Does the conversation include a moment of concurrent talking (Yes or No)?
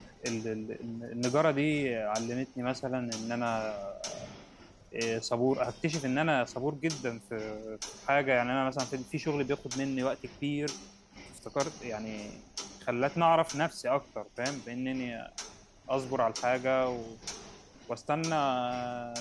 No